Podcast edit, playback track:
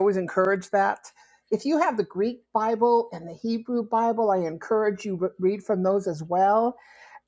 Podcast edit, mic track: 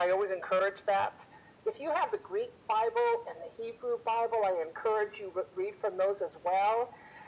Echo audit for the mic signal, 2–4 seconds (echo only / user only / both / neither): echo only